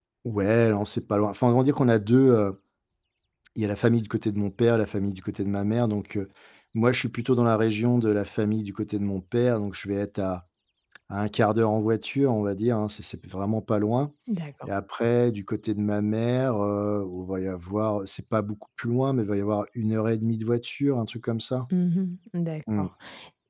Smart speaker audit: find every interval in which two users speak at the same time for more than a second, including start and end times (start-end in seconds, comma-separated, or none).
none